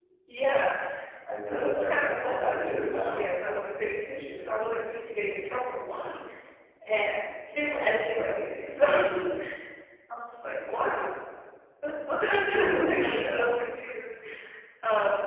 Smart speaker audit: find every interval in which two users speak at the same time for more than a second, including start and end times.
1.5-3.2

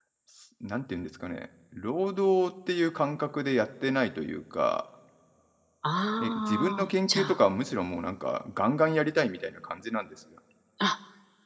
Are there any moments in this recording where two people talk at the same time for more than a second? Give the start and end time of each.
6.2-7.4

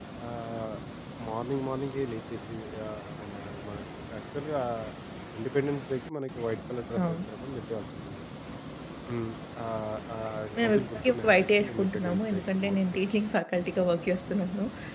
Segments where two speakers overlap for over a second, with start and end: 10.6-13.1

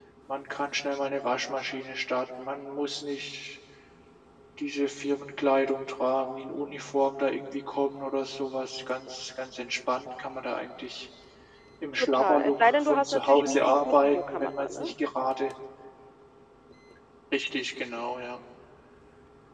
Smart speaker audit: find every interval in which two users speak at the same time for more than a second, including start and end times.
11.9-14.9

